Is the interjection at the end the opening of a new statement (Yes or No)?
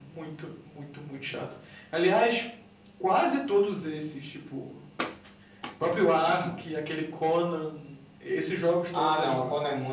Yes